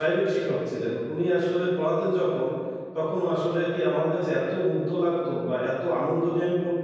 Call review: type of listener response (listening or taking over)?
listening